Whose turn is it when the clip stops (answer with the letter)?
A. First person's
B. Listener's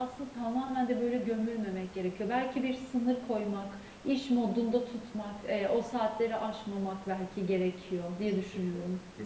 B